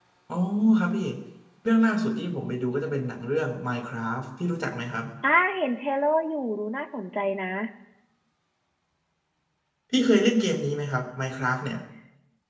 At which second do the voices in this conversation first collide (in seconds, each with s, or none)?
none